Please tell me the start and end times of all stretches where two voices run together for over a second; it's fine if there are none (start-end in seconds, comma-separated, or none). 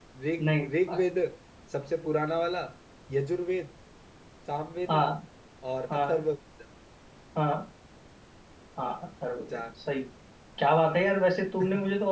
none